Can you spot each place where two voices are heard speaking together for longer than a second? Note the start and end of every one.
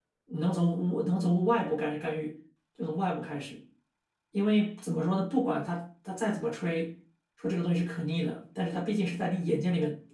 none

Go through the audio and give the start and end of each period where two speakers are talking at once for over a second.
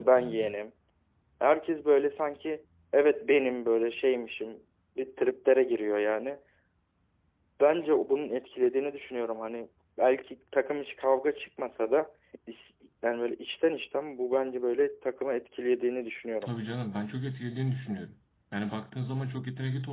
none

